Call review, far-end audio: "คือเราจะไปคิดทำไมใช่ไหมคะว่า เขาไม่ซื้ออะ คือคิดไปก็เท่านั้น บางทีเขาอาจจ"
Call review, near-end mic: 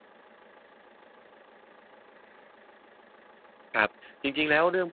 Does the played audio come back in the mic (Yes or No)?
No